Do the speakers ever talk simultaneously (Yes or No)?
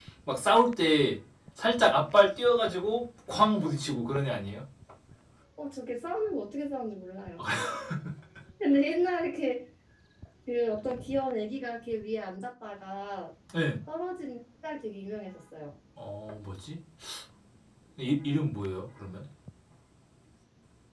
No